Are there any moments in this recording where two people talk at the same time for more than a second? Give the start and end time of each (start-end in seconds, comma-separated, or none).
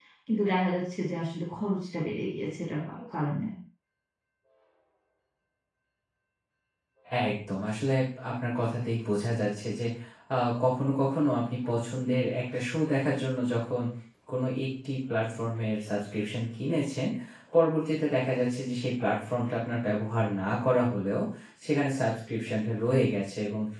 none